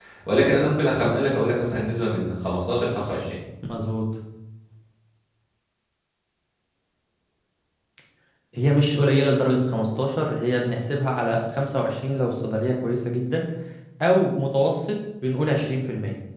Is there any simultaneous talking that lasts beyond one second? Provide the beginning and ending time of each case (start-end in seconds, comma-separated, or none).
none